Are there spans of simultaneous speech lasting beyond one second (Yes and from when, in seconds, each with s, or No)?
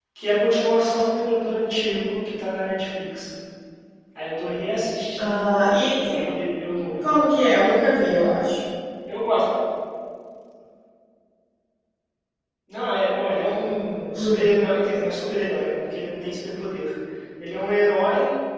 No